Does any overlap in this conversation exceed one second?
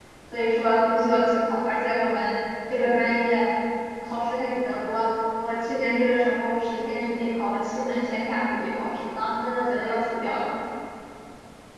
No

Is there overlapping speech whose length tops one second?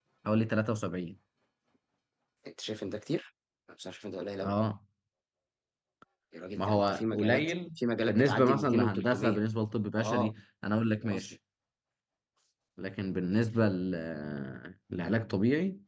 Yes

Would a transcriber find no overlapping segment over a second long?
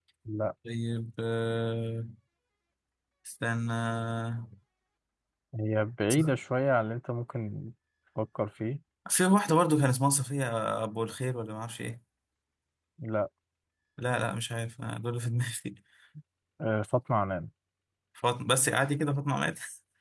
Yes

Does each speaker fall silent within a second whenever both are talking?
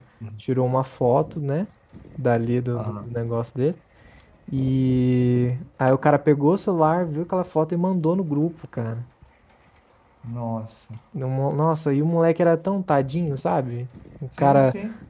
Yes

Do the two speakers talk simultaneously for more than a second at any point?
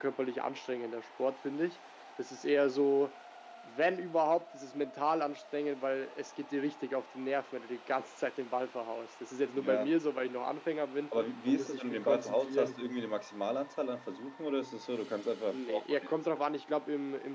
Yes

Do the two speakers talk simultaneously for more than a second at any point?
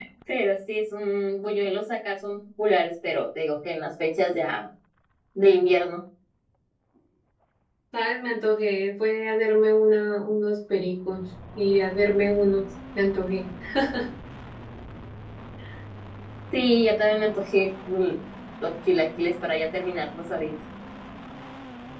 No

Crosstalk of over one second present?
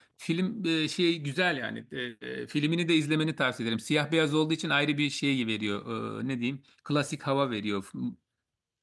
No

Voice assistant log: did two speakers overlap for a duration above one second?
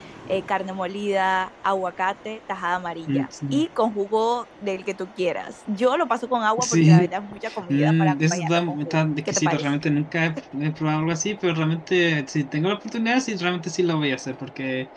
Yes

